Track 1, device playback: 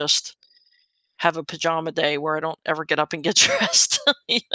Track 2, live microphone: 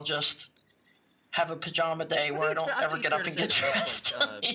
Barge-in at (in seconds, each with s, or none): 2.3 s